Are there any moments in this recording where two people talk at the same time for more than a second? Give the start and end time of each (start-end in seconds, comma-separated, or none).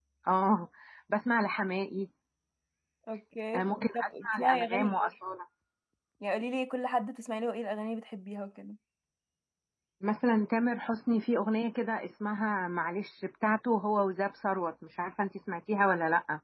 3.6-5.1